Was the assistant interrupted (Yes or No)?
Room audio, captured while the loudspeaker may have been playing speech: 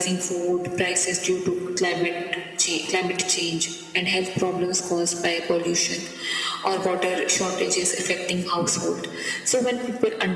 No